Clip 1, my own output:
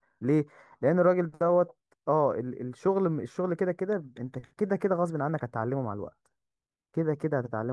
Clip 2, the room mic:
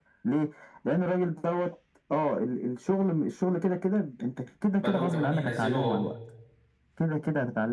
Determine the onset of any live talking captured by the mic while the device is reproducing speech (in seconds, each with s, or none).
4.8 s